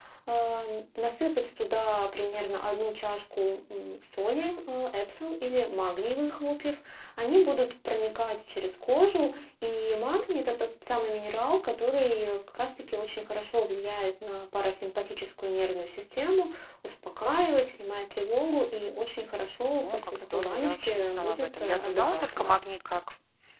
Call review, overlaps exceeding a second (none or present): present